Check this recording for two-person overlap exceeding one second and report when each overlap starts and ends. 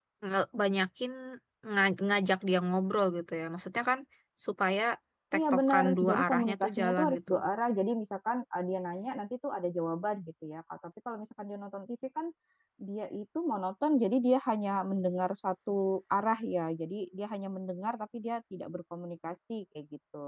5.4-7.3

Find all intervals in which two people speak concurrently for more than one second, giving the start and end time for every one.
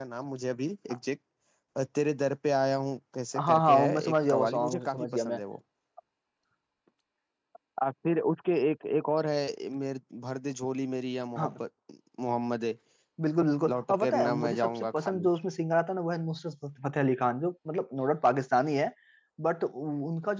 3.4-5.4, 13.7-15.3

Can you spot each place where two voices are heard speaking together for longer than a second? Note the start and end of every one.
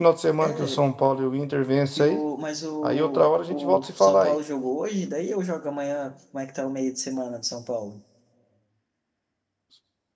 2.8-4.4

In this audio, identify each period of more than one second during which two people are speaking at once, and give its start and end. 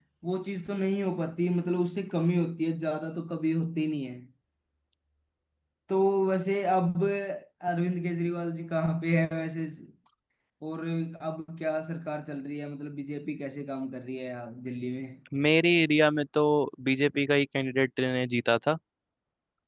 none

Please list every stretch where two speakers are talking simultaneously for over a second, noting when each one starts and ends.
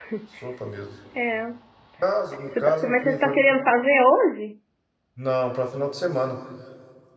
2.3-3.5

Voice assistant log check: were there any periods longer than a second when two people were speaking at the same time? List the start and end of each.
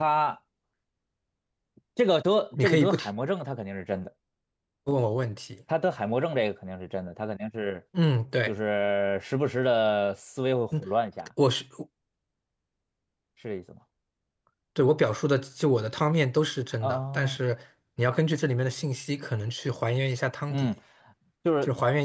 none

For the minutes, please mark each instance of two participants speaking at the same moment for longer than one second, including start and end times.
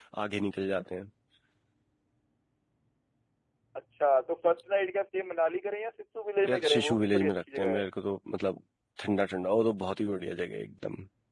6.5-7.9

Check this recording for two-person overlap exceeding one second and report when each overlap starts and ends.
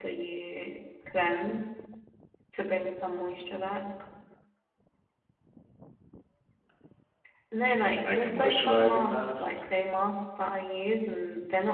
8.1-9.5

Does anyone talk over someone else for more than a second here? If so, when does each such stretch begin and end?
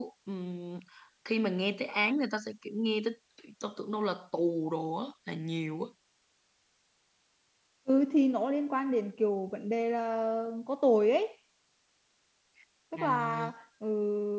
none

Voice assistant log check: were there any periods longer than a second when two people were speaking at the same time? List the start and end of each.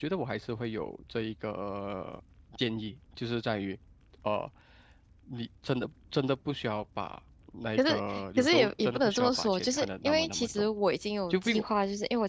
7.8-10.7

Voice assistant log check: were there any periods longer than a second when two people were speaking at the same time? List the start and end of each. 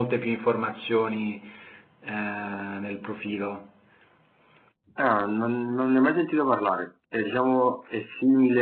none

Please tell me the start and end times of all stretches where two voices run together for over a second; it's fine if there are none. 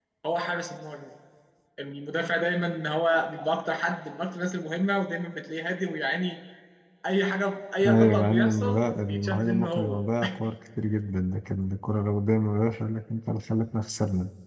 7.9-10.0

